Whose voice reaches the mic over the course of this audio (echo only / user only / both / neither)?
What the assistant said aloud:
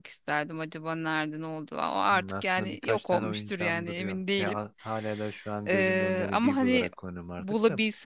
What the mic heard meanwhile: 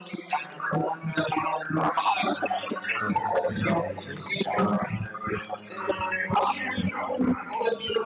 both